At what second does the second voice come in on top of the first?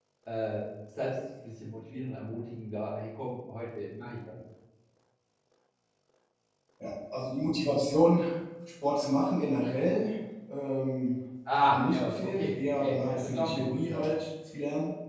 11.6 s

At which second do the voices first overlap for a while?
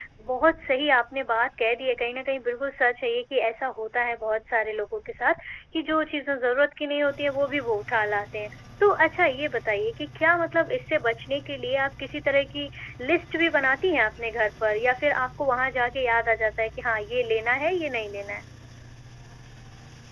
none

